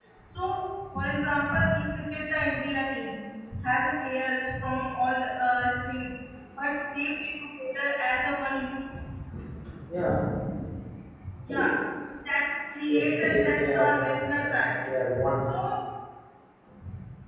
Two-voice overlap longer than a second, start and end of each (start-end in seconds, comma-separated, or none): 12.9-14.8